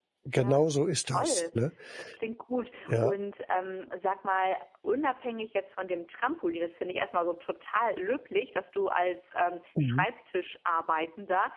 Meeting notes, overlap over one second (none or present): none